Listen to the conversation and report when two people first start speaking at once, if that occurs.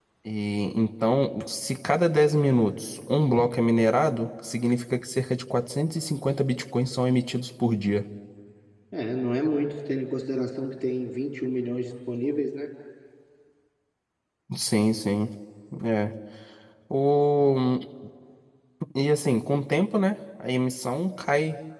none

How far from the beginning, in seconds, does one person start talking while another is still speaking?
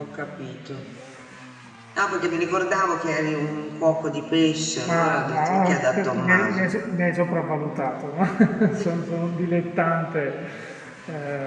5 s

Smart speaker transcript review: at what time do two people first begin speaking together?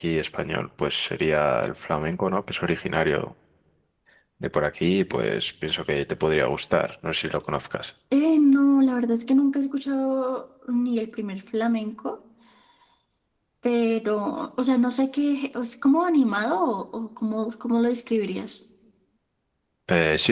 none

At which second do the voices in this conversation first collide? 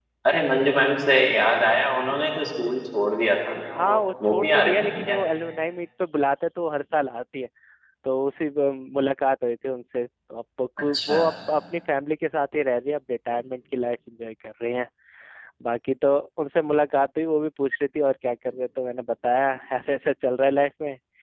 4 s

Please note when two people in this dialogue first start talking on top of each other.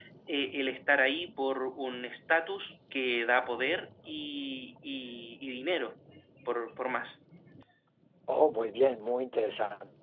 none

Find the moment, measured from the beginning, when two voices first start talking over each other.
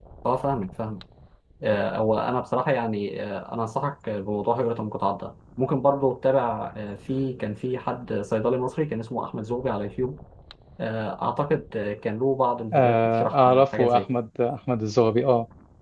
13 s

